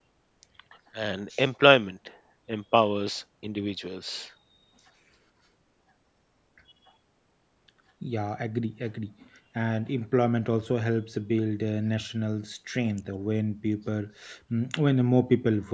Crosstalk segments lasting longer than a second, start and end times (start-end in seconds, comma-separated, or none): none